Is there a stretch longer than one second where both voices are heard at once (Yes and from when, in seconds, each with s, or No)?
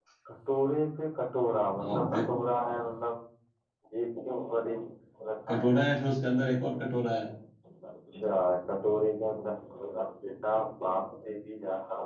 No